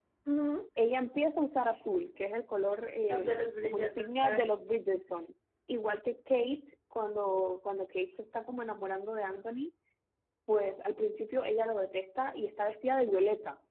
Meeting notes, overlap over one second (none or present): present